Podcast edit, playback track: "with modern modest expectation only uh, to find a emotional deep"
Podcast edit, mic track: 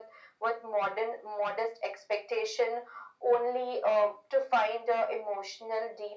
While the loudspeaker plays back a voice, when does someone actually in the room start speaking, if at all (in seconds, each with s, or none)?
none